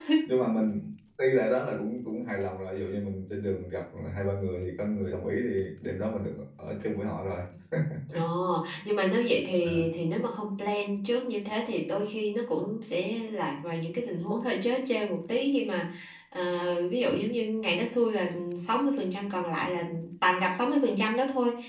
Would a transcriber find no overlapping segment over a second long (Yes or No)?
Yes